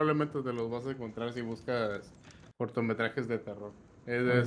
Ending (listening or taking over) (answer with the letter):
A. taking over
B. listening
B